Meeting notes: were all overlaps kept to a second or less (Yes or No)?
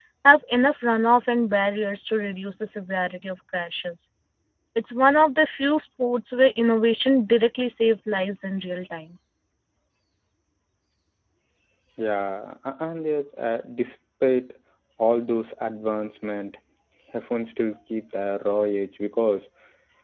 Yes